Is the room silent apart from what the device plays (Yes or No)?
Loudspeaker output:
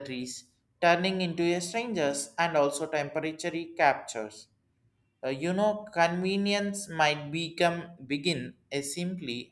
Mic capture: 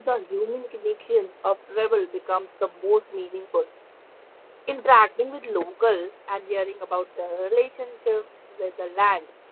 No